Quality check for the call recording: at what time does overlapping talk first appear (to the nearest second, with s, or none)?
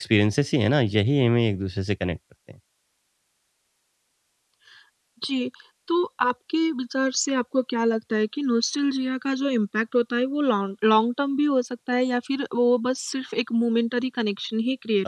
none